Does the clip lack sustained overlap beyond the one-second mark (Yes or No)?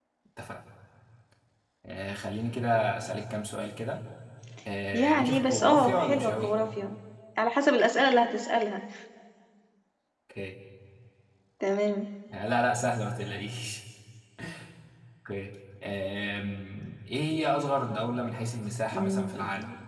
No